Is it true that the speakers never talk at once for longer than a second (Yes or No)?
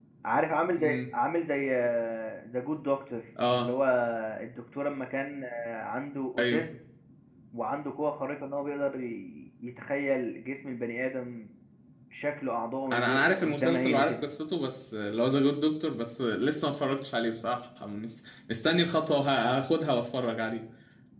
No